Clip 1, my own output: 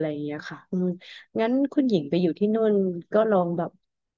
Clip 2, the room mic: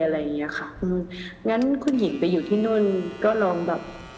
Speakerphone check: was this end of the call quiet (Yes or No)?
Yes